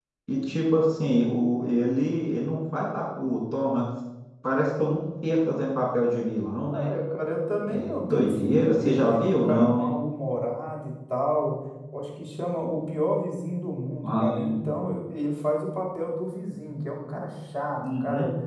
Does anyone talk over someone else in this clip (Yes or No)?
Yes